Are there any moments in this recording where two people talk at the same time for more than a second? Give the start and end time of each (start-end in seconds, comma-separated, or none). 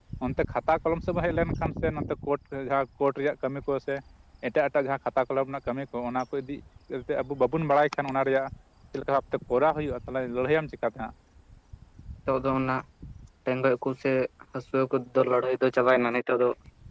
none